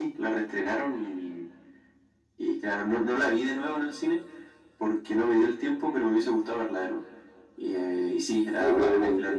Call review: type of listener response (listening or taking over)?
listening